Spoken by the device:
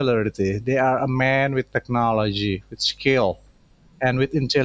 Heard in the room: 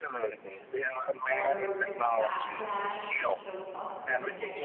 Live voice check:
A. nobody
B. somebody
B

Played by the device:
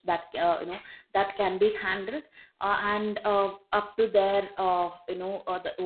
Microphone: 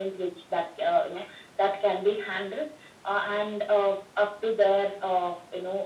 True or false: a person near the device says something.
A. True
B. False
B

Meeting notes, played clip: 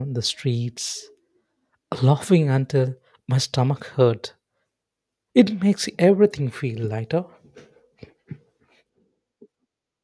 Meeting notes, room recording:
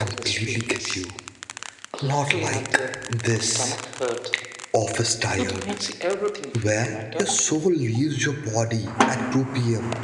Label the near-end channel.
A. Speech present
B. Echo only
A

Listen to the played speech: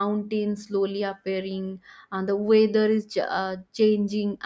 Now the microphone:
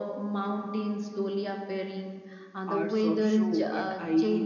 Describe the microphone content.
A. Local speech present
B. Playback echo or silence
A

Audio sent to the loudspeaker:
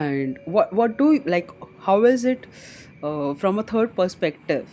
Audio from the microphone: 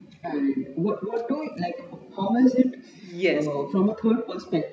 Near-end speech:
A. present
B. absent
A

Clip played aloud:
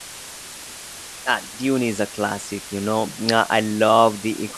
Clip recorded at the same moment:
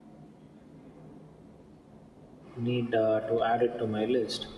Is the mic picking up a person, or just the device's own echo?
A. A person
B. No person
A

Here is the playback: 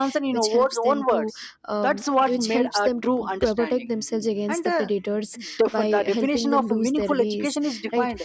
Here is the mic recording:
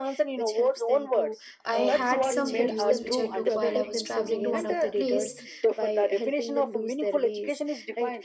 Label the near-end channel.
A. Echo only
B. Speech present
B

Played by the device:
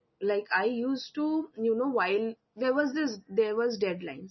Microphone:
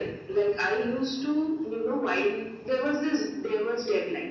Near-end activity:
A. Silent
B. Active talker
A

